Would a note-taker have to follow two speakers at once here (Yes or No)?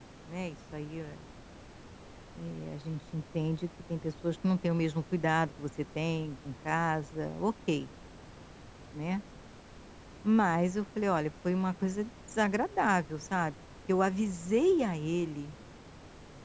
No